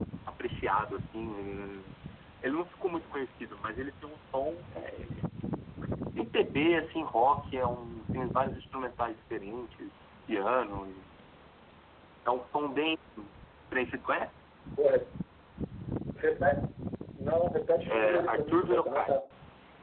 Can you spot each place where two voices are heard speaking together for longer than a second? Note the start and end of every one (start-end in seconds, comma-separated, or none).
17.9-19.2